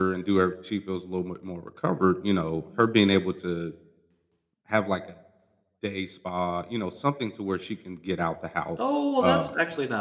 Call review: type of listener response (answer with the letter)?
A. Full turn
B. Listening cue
A